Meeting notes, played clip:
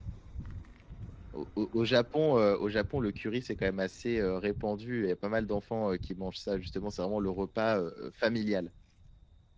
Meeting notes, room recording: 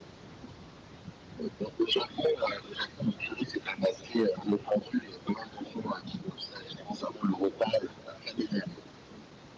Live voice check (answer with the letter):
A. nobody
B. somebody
A